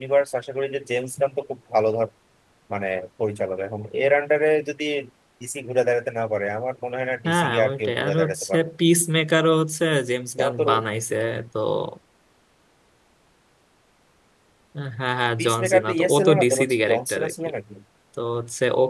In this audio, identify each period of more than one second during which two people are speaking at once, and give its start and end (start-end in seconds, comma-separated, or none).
7.3-8.7, 15.4-17.3